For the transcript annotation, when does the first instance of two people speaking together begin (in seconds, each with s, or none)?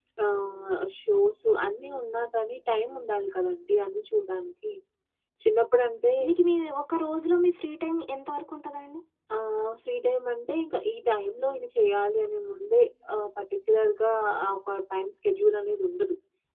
none